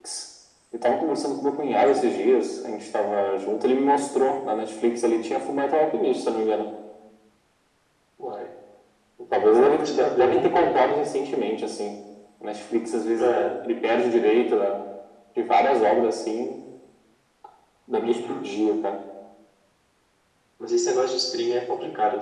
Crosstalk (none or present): present